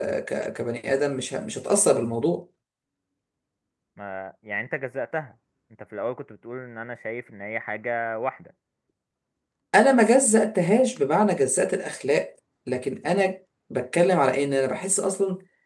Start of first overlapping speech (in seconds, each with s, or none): none